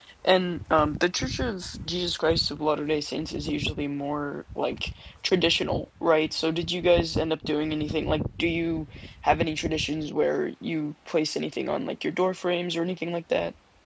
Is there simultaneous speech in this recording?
No

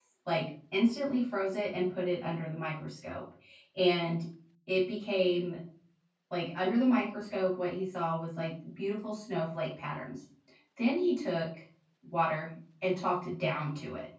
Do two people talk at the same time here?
No

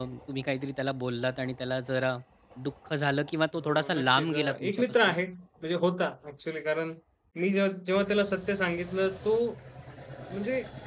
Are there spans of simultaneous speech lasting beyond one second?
Yes, from 3.5 s

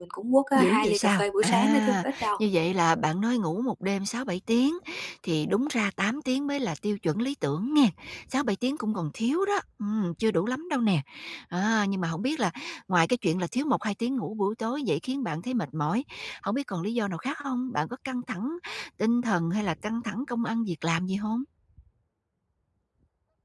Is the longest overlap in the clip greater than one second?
Yes, from 0.6 s

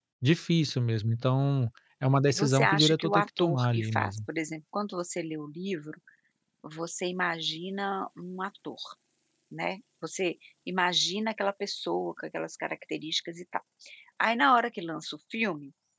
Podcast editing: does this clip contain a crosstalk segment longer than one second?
Yes, from 2.3 s

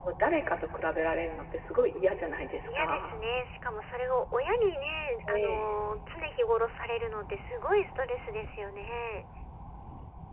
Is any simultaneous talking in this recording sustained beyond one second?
No

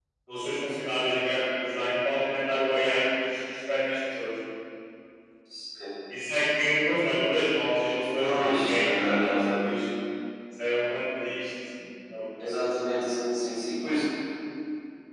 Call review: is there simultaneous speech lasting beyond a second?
Yes, from 8.2 s

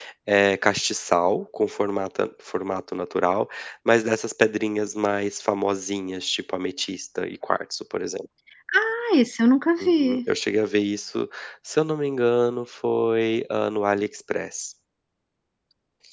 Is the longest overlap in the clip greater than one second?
No

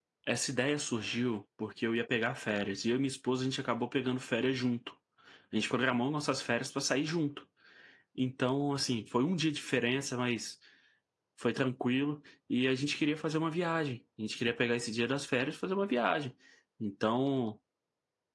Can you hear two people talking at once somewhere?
No

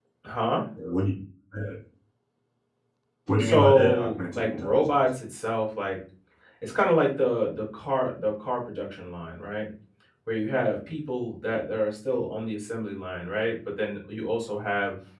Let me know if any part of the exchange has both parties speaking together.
Yes, from 3.4 s

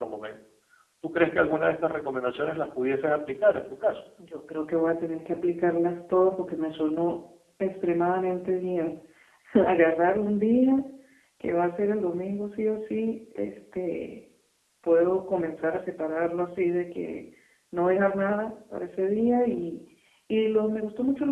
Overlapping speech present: No

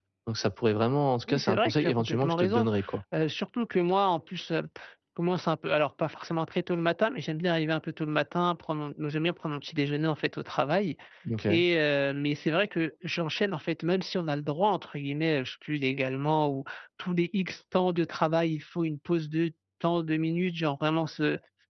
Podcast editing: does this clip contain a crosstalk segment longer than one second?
Yes, from 1.3 s

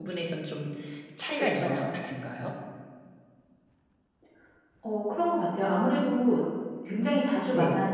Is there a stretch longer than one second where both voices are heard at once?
No

